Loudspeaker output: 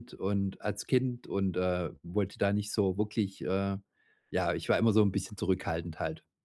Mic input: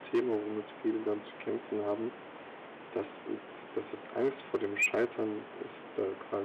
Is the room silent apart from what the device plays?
No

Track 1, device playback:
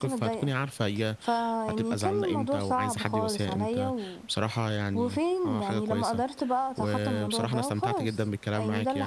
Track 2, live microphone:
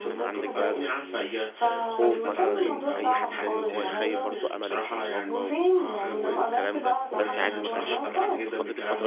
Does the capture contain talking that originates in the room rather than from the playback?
Yes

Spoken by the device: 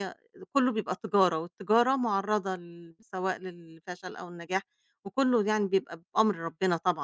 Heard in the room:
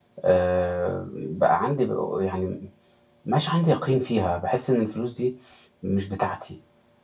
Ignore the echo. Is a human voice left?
Yes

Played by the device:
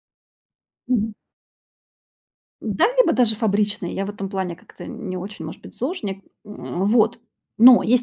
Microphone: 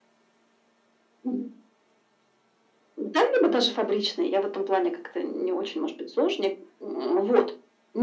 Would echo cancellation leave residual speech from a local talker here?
No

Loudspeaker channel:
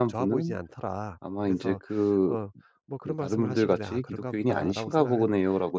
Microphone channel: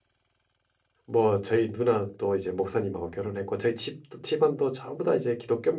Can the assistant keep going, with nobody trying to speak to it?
No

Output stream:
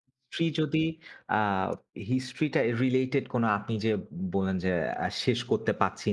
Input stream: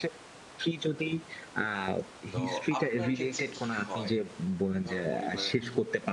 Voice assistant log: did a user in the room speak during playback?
Yes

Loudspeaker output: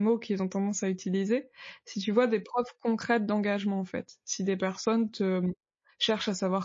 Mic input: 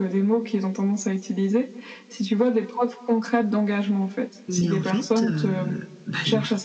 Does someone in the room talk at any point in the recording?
Yes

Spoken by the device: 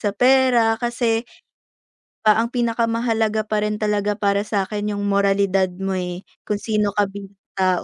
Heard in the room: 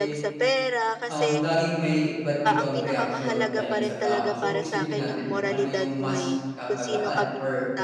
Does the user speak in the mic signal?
Yes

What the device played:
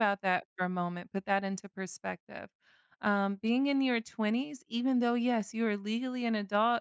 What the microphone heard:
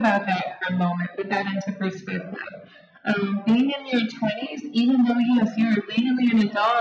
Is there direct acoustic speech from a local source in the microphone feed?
No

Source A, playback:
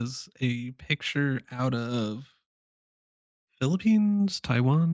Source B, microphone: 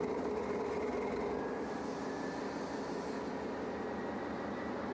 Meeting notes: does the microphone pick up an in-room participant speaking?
No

